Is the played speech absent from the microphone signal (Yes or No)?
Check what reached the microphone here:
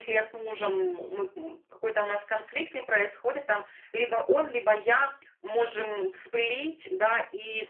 No